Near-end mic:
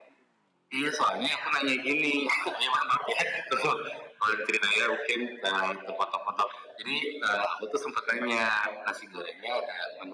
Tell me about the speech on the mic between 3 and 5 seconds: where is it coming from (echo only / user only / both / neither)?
echo only